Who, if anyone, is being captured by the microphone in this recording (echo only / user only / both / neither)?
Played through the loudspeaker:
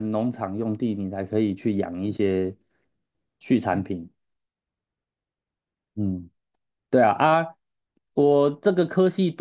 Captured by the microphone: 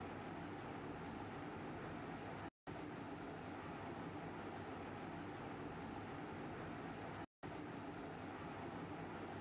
neither